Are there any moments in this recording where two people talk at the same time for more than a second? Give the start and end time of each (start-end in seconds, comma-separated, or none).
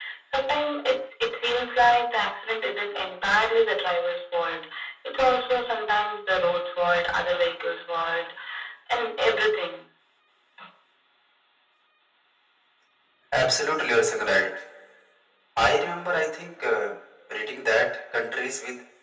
none